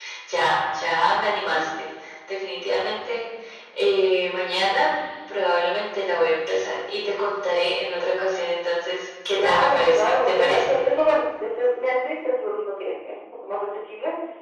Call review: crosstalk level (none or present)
present